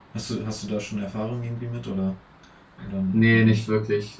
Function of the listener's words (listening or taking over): taking over